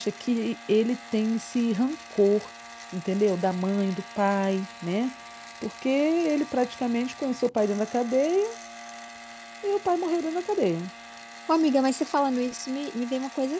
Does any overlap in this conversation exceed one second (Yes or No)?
No